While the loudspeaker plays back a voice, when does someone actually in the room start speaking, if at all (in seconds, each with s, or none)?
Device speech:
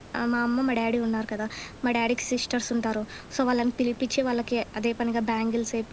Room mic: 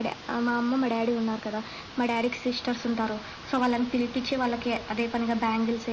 none